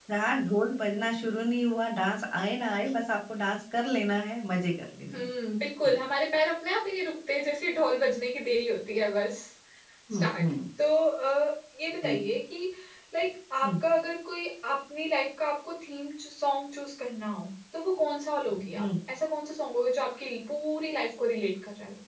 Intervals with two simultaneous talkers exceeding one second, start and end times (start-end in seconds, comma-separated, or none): none